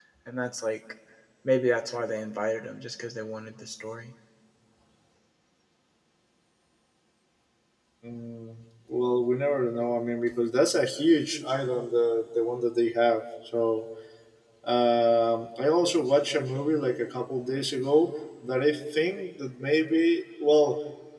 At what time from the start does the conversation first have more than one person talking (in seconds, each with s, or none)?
none